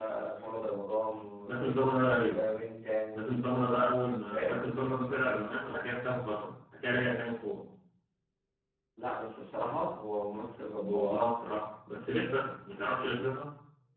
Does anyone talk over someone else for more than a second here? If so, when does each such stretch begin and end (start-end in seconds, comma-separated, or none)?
none